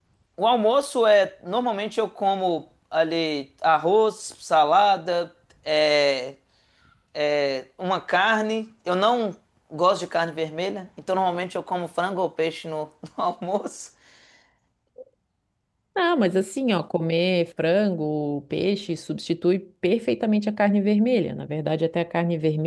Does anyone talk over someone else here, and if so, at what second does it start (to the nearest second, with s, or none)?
none